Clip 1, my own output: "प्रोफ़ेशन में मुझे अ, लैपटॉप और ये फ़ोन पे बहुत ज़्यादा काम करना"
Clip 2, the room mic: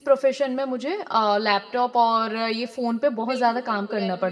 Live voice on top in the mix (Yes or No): No